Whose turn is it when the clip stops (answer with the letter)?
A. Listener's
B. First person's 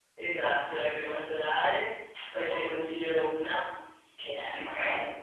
A